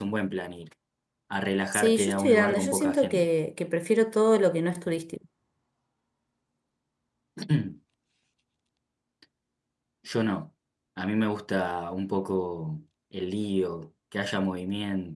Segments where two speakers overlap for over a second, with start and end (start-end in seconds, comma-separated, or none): 1.7-3.3